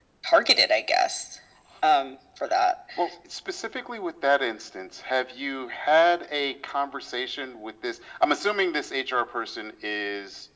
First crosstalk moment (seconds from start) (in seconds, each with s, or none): none